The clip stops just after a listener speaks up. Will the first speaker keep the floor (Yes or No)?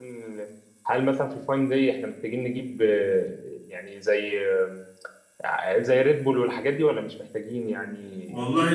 No